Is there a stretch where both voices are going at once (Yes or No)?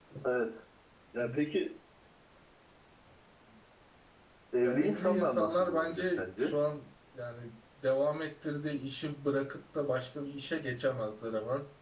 Yes